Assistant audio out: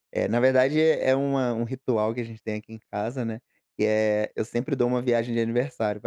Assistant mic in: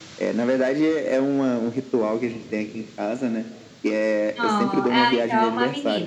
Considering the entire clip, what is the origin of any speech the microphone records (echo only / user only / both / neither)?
both